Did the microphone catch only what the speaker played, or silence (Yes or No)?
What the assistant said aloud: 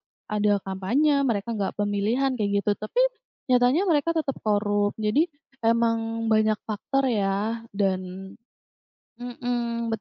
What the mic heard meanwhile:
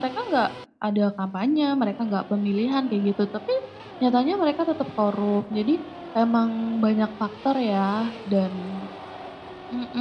Yes